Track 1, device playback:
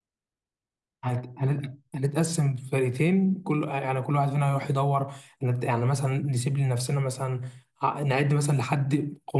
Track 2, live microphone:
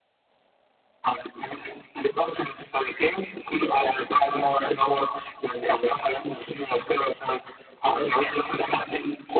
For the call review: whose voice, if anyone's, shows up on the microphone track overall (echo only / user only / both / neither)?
echo only